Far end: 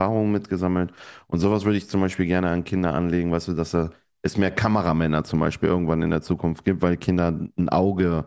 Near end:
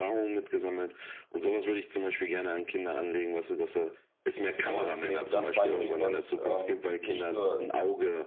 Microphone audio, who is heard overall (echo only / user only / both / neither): both